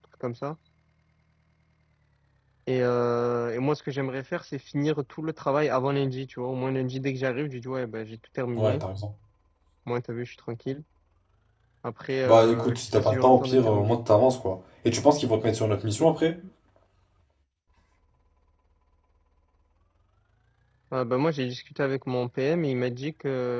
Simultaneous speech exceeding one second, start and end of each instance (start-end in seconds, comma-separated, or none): 12.2-14.0